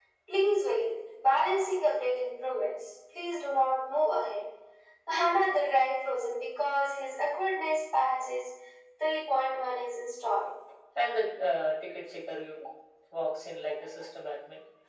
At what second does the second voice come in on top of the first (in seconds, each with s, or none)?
none